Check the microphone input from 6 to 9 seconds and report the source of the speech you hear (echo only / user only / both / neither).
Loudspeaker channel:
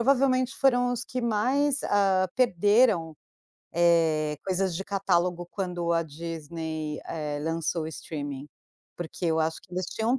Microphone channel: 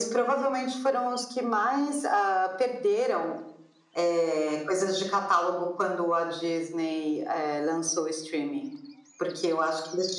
echo only